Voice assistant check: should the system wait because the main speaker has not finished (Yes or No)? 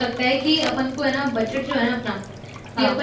Yes